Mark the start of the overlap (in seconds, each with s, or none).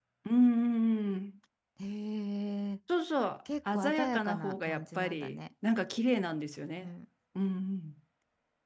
3.7 s